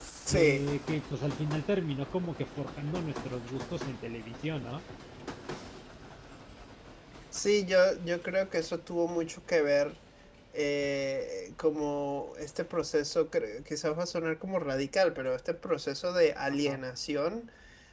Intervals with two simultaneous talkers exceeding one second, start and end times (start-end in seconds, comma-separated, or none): none